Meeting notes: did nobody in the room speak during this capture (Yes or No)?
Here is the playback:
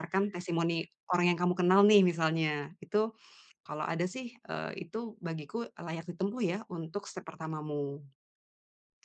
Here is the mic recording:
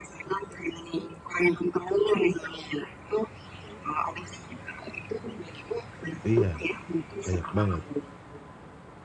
No